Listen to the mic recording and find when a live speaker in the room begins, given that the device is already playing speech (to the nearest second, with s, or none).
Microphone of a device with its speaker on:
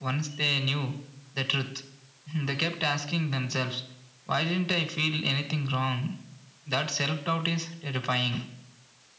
none